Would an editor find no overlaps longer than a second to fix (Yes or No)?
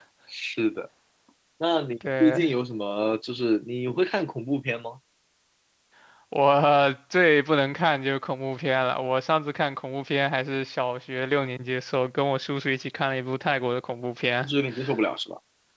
Yes